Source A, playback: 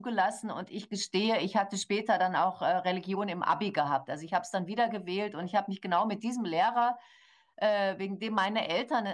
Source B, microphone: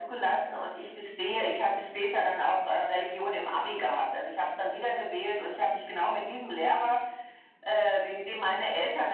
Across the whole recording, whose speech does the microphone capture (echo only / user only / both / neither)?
echo only